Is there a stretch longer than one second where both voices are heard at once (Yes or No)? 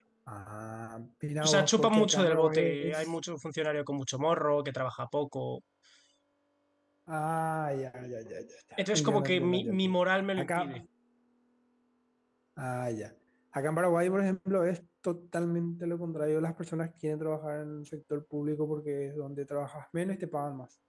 Yes